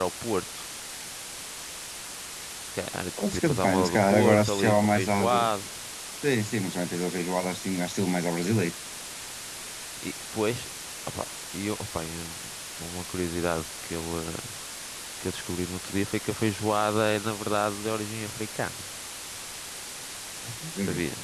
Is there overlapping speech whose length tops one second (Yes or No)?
Yes